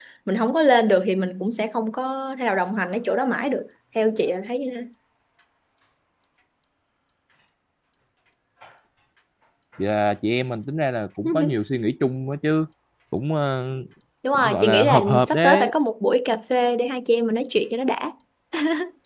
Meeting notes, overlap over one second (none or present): present